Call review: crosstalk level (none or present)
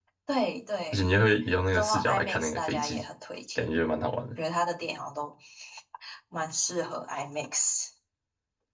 present